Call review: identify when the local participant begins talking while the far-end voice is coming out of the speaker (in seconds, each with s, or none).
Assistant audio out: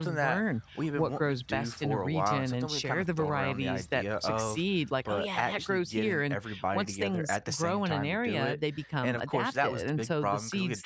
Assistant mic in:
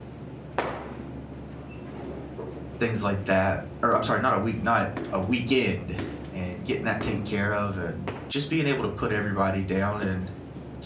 2.8 s